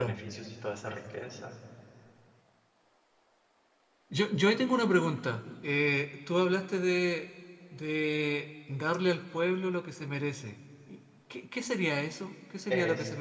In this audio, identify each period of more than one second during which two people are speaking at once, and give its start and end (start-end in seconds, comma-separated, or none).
none